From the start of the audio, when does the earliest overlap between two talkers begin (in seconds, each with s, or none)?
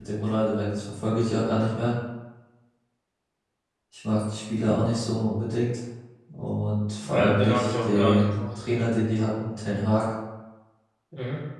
7.0 s